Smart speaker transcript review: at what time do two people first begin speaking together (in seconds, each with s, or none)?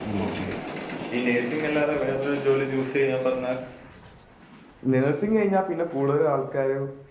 none